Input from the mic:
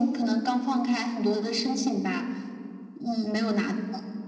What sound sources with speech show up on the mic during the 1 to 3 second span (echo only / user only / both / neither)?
echo only